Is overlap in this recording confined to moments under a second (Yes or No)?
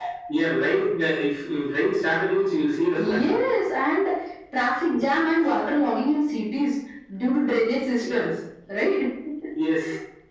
Yes